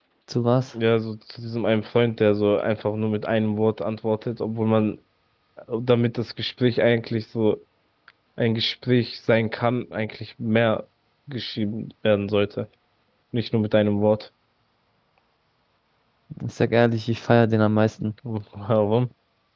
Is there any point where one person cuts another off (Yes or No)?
No